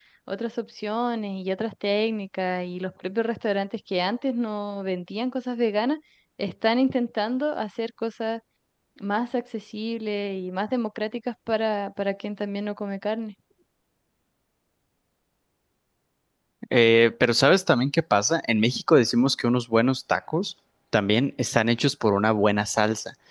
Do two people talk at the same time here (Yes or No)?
No